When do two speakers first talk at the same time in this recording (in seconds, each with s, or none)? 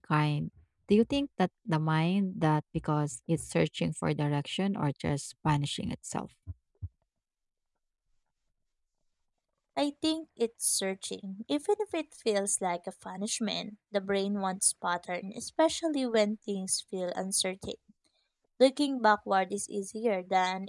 none